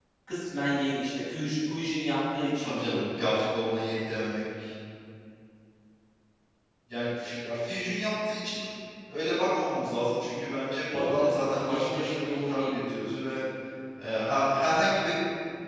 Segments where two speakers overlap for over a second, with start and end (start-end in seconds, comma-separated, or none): 10.9-12.7